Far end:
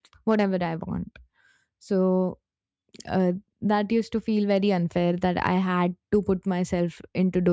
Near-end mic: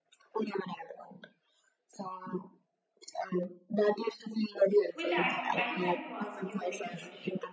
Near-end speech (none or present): present